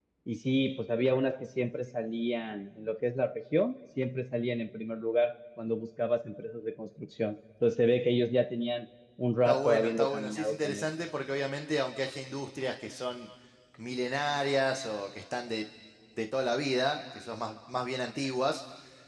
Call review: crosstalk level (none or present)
present